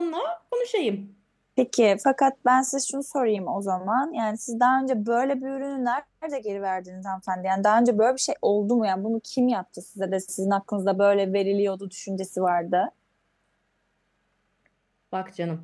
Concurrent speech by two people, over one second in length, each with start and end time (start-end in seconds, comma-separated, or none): none